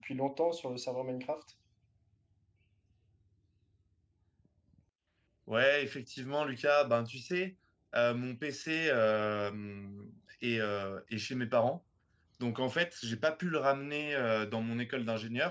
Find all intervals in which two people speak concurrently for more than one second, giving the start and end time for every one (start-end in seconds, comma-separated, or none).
none